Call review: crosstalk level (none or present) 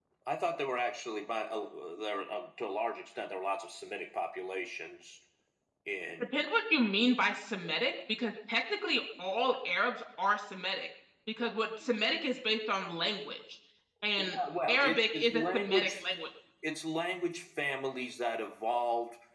present